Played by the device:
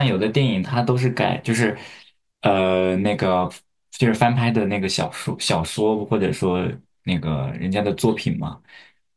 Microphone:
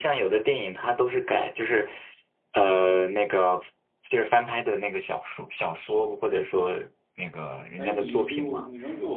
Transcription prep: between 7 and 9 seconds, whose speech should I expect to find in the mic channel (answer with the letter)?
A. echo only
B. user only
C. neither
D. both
D